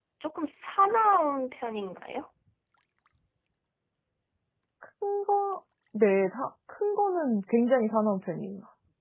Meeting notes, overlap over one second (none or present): none